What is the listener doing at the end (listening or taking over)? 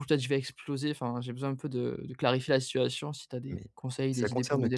taking over